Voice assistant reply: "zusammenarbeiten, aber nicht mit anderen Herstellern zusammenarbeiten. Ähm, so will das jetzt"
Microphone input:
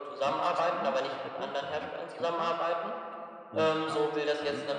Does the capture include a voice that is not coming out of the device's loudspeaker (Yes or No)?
Yes